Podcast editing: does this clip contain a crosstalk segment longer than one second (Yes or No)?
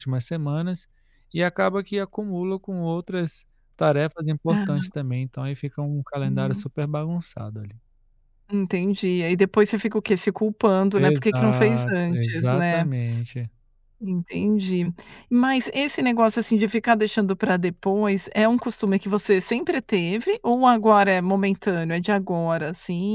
Yes